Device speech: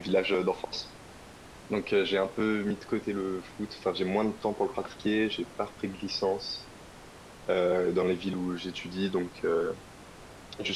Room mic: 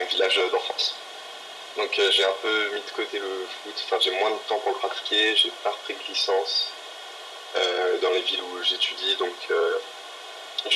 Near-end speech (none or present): none